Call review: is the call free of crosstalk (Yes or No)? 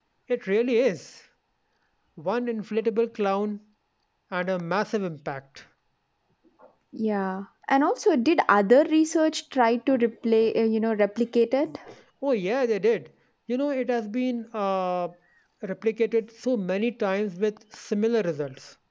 Yes